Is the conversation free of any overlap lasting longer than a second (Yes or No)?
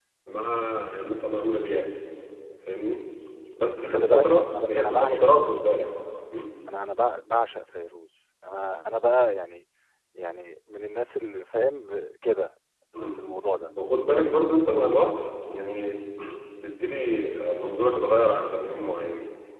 No